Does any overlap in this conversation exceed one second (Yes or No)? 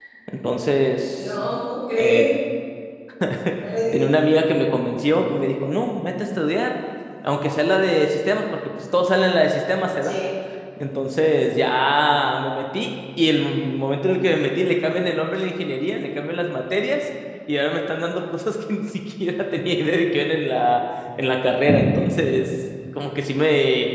No